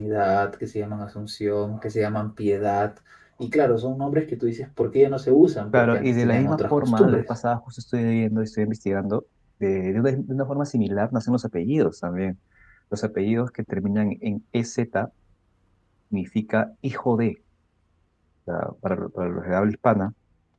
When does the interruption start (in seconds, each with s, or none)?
5.7 s